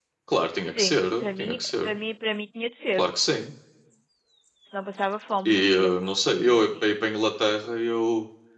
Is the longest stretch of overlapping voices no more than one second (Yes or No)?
No